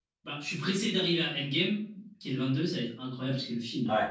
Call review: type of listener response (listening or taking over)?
taking over